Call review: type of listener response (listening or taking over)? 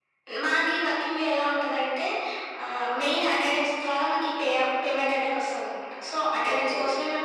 listening